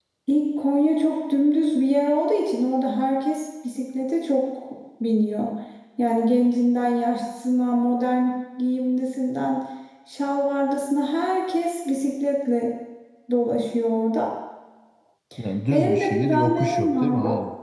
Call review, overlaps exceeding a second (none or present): present